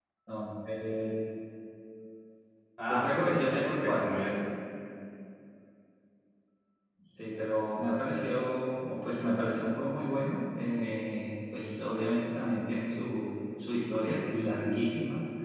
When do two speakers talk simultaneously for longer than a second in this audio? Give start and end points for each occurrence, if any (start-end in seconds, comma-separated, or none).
2.9-4.1